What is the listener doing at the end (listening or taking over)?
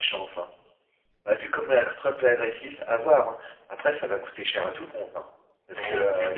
taking over